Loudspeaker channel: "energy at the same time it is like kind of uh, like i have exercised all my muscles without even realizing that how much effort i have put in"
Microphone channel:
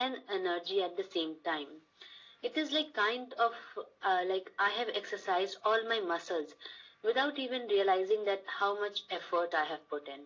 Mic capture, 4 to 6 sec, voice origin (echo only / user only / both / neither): echo only